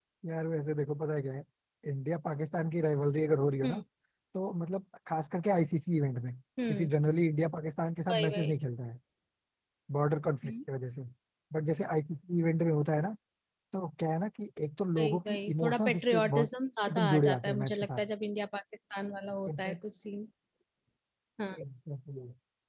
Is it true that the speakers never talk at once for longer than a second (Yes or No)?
No